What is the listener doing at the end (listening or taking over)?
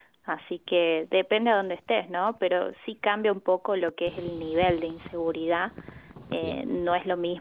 listening